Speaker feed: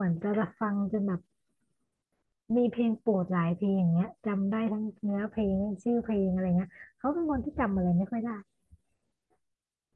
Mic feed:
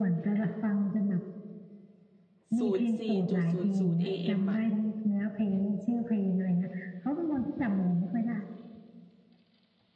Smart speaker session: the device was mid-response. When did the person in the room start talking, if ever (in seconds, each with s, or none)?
2.6 s